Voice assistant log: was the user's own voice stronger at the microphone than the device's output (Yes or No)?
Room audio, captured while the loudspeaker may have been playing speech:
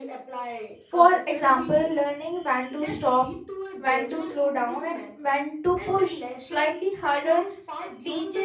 Yes